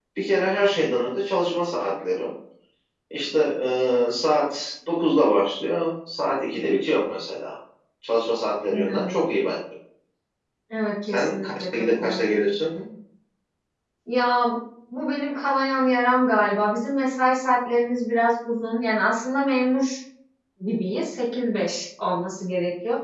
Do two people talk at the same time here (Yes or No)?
Yes